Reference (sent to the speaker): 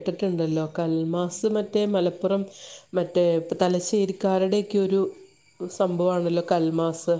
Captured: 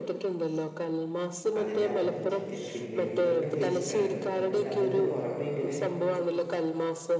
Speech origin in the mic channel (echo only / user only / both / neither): both